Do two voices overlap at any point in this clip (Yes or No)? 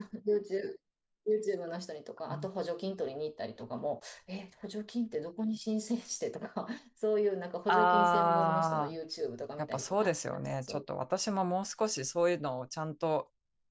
Yes